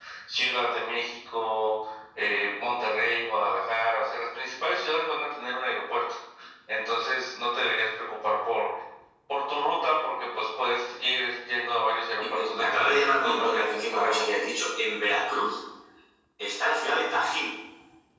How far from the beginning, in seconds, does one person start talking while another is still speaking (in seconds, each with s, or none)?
12.3 s